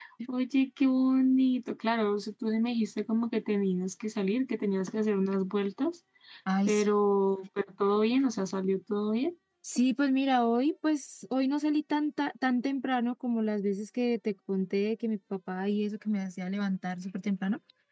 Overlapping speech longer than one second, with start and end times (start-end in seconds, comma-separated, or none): none